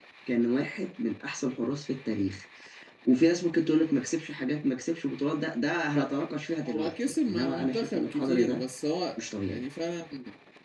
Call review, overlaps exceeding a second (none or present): present